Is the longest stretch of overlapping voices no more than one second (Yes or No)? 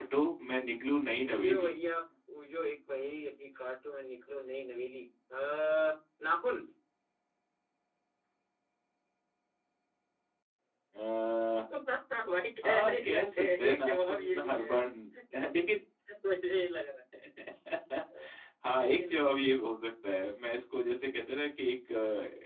No